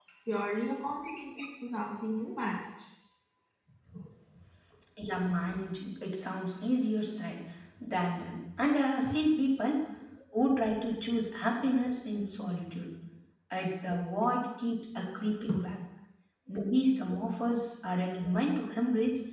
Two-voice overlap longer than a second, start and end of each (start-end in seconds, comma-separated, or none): none